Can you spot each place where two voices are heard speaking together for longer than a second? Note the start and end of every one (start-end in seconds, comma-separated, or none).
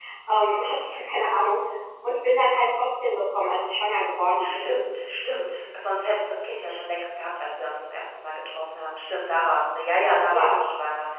none